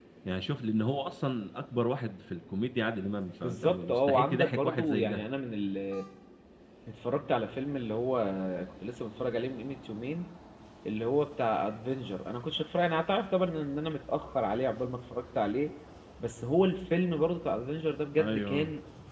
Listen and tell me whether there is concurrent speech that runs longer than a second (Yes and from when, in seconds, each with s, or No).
Yes, from 3.4 s